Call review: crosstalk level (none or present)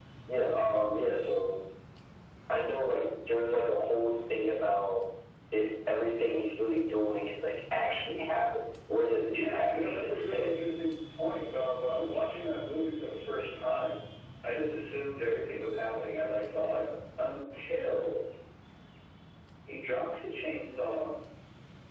present